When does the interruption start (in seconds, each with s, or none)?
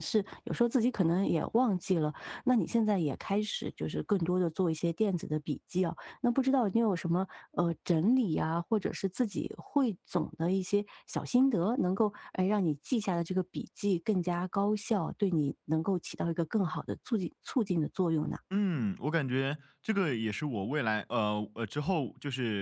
none